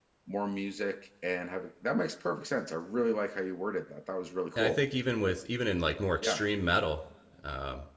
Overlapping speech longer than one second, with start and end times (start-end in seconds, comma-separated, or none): none